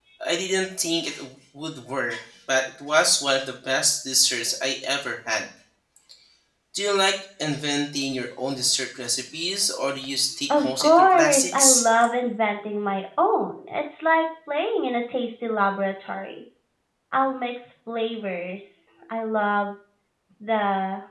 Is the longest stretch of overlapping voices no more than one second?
No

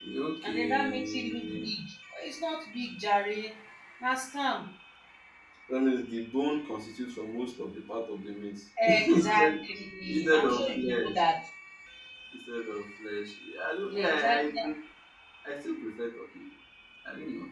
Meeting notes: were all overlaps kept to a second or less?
No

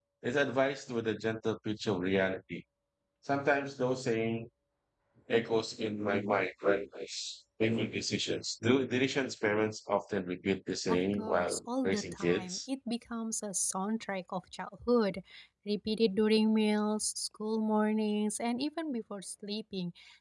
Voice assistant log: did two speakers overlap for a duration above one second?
Yes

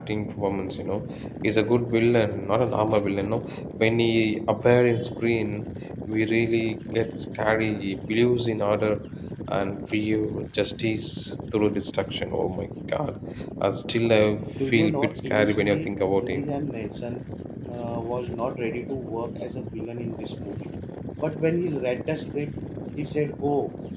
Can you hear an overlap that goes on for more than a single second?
Yes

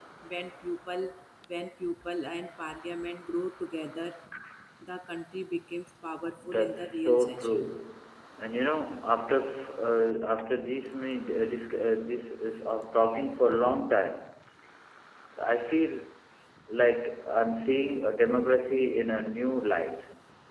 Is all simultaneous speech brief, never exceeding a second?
No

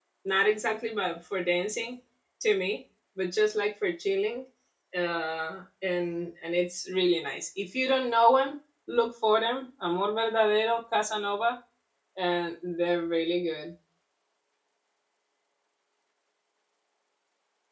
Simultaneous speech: No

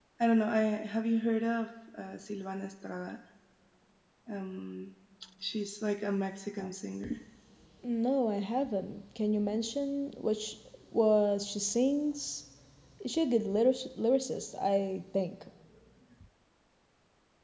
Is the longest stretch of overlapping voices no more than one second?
Yes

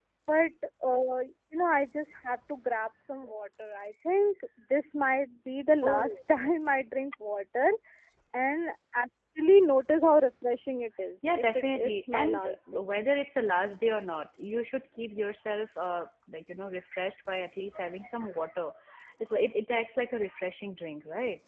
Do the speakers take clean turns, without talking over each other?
No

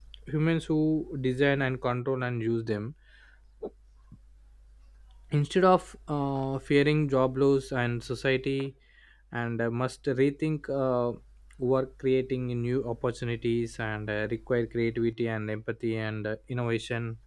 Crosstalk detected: No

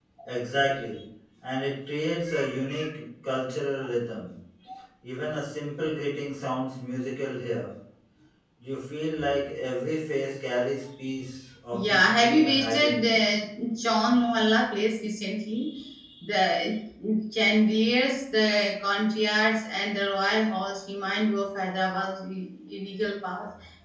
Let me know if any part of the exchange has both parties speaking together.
Yes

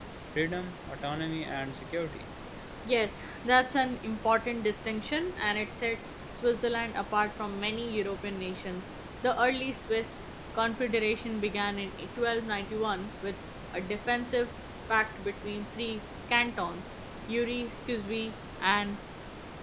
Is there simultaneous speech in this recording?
No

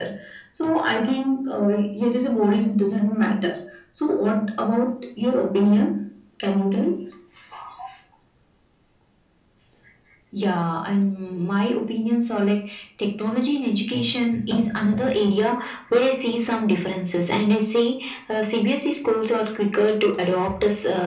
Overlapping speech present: No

